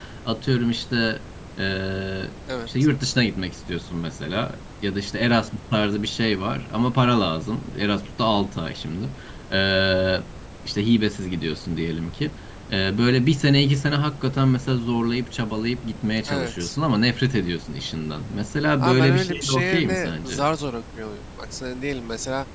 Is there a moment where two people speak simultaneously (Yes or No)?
Yes